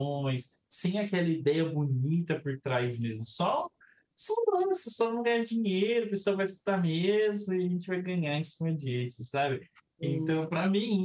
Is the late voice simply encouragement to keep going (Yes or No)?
Yes